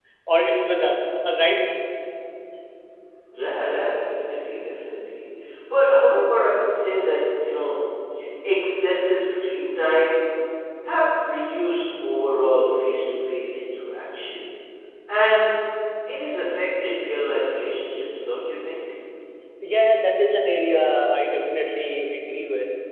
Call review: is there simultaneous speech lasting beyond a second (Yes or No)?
No